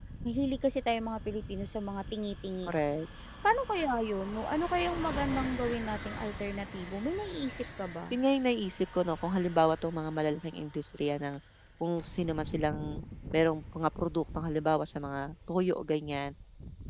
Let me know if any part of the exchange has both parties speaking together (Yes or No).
No